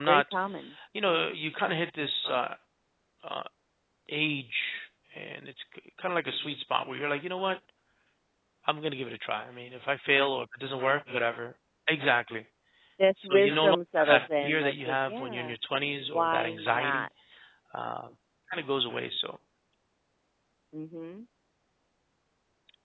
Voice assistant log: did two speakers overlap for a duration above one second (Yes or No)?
Yes